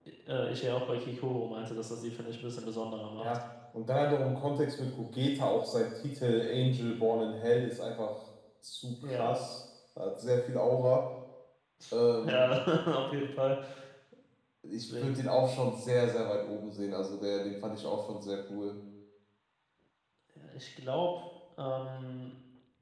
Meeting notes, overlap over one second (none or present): none